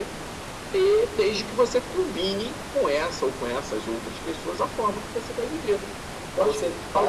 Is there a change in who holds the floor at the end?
Yes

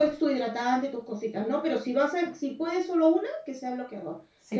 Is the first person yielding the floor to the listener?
Yes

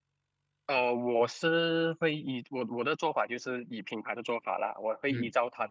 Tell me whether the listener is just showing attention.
Yes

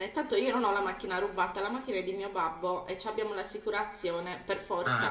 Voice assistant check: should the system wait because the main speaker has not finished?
No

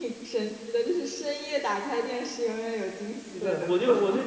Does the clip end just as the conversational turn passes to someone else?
Yes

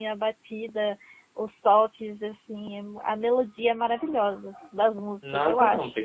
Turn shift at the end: Yes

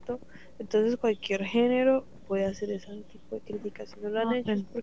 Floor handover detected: No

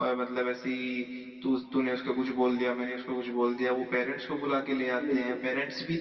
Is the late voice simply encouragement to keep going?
Yes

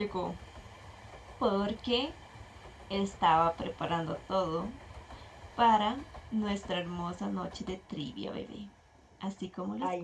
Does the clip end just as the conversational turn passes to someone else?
Yes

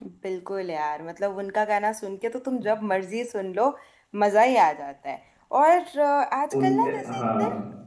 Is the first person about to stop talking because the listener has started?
No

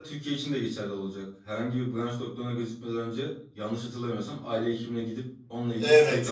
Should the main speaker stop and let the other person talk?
Yes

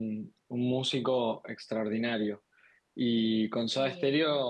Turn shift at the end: No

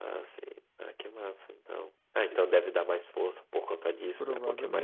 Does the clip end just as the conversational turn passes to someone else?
Yes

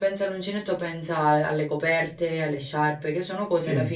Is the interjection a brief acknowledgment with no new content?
No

